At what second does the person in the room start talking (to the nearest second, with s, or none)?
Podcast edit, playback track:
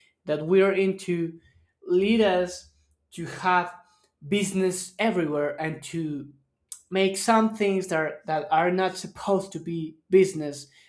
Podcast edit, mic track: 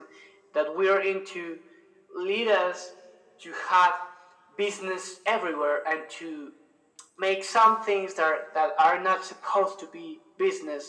none